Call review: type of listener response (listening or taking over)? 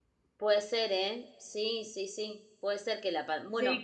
listening